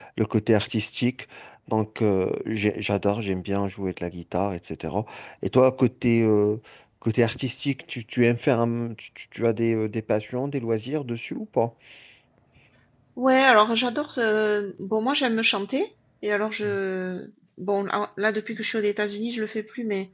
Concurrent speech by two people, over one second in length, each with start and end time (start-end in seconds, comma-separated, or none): none